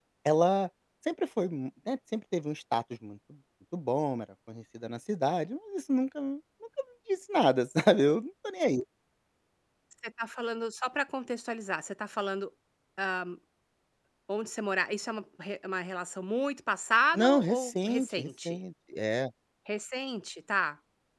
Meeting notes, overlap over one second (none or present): present